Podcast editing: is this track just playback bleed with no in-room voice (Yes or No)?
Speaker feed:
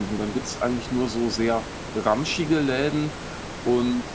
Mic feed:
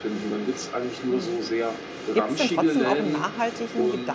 No